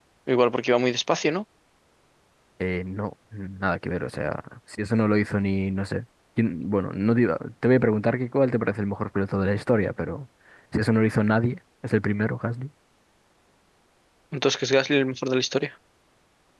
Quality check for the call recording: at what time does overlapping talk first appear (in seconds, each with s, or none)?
none